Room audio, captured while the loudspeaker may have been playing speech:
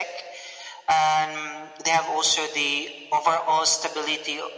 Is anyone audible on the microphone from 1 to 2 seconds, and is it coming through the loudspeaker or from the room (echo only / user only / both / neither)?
echo only